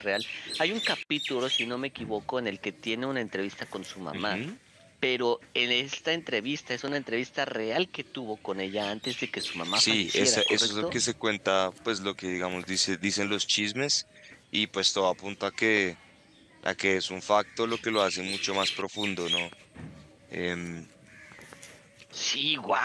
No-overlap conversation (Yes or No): No